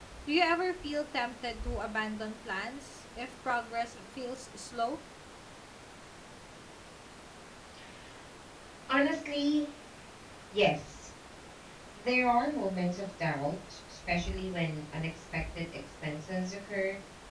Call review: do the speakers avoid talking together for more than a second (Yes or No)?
Yes